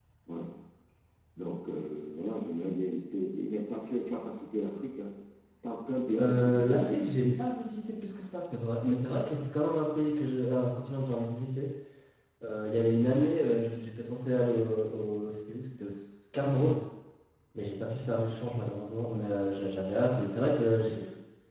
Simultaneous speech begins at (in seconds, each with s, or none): 6.2 s